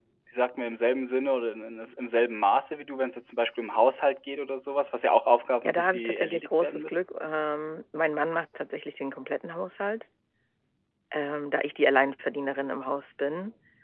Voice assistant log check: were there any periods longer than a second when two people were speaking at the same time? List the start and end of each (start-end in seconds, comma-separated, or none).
5.7-7.0